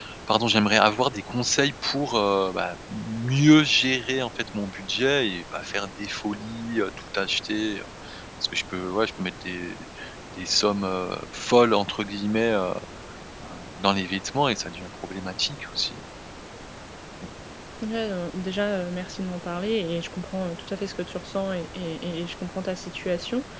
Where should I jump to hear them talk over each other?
none

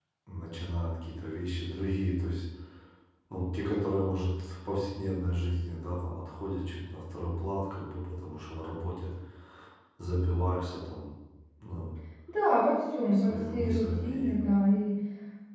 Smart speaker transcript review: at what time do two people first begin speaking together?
13.1 s

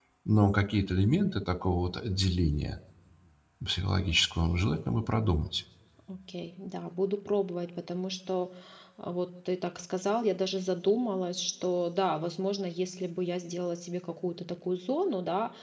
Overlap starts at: none

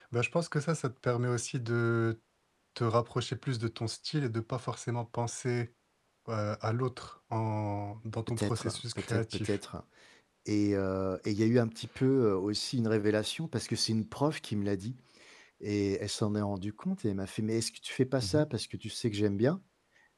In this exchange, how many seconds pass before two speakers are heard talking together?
8.4 s

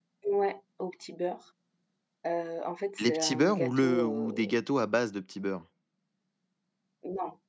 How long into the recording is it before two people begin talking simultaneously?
3.0 s

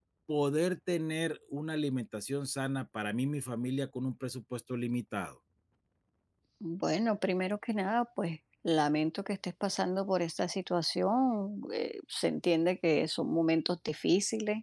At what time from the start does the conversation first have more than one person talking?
none

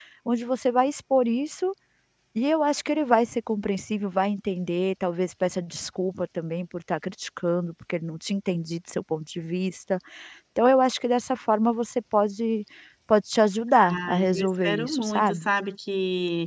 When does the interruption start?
13.9 s

